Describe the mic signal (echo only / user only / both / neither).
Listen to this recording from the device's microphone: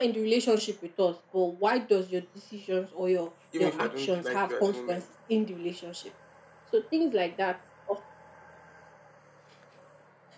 both